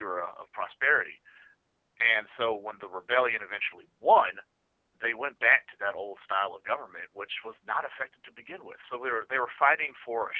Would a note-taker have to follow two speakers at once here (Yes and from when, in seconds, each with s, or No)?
No